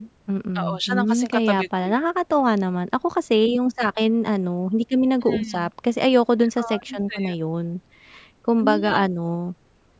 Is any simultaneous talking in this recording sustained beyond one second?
Yes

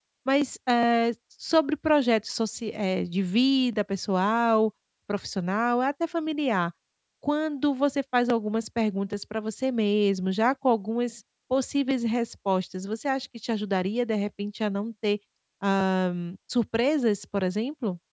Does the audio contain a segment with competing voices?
No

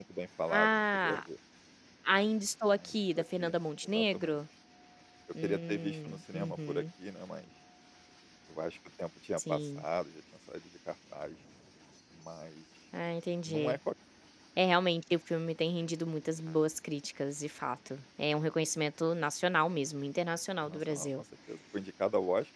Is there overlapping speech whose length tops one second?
Yes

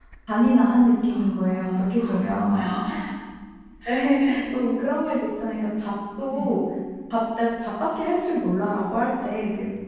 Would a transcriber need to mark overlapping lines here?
Yes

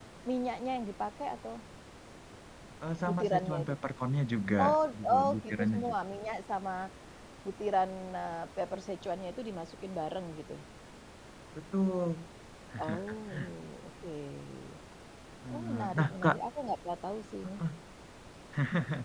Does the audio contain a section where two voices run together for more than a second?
Yes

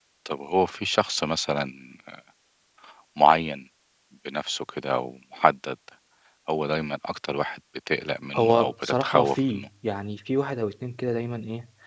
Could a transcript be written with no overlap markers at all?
No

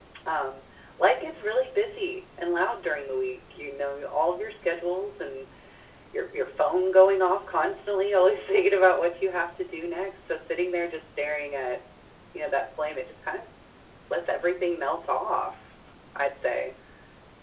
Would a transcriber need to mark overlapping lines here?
No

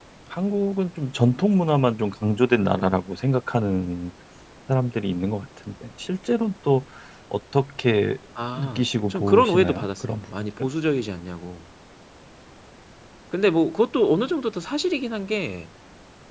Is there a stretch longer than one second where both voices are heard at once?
Yes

